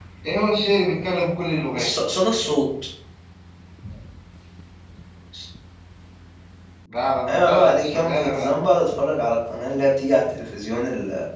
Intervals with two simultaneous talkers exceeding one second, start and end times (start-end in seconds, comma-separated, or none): 7.3-8.5